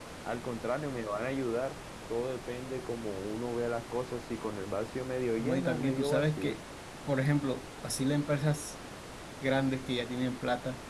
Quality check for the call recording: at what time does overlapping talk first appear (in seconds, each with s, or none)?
5.4 s